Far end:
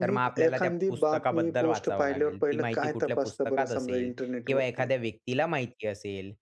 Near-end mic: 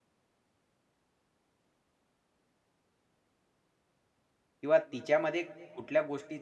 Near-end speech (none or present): present